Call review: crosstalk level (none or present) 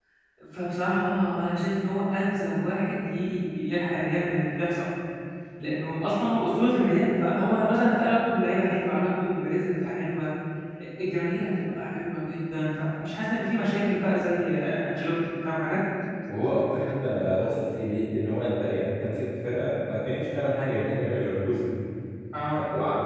none